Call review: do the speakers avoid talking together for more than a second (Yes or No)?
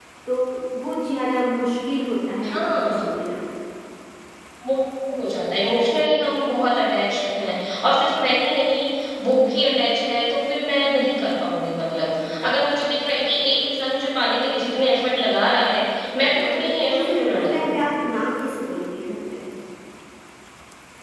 No